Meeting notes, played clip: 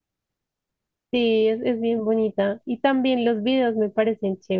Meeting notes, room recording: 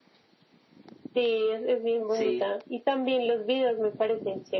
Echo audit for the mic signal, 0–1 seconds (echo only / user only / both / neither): neither